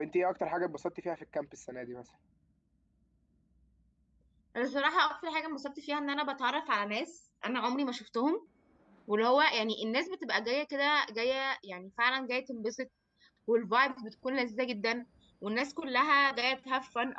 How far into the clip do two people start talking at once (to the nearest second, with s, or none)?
none